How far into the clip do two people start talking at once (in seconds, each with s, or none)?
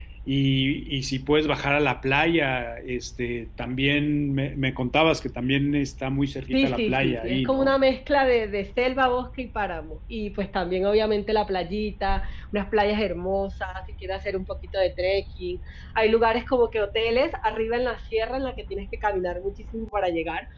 6.5 s